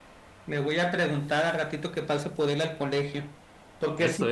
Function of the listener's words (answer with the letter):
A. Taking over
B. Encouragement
B